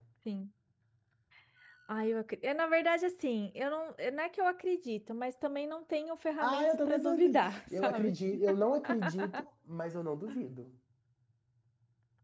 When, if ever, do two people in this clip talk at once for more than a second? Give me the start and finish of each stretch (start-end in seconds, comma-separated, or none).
6.4-8.1